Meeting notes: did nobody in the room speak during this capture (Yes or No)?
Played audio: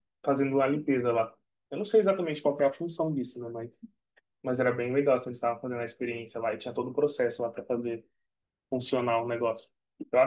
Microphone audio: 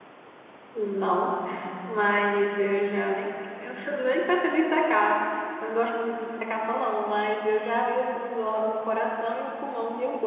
No